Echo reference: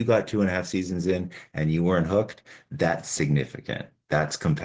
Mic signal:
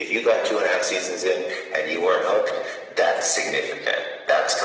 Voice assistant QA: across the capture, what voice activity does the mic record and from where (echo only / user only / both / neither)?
echo only